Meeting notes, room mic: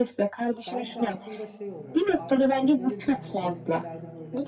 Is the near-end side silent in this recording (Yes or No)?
No